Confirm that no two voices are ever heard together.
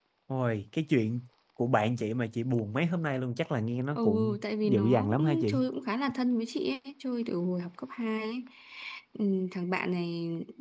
No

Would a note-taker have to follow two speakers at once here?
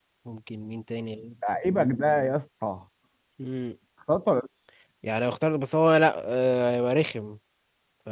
No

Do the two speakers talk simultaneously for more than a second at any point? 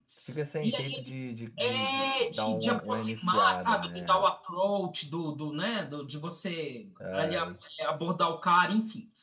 Yes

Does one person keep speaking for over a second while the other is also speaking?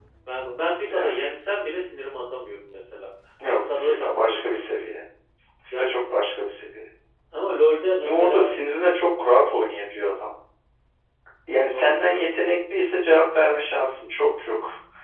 Yes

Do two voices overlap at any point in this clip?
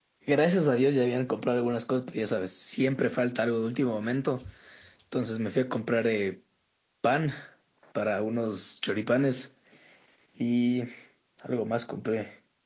No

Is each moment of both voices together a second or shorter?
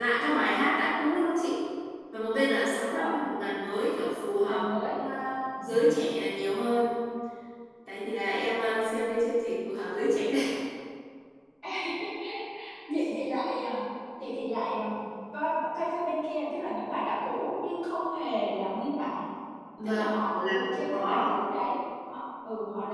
No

